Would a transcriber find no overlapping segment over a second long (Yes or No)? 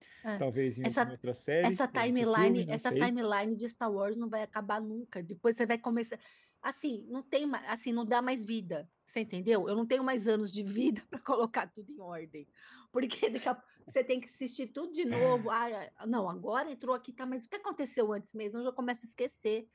No